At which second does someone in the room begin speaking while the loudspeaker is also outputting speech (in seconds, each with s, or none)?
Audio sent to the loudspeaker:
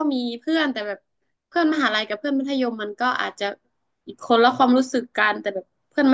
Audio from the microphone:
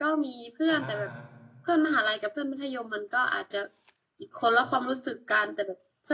0.7 s